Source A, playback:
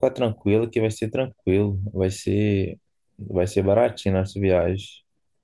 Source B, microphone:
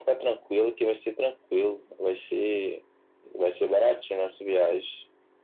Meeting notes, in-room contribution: none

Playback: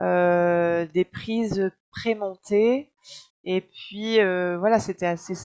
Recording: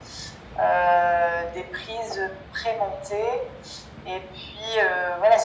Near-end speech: none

